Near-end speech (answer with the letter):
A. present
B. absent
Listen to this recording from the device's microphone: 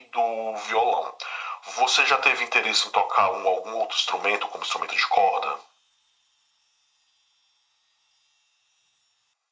B